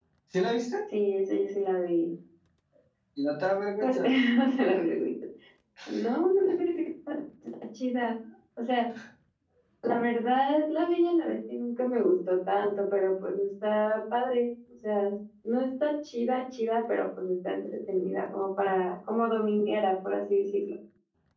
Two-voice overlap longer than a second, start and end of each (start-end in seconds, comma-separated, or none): none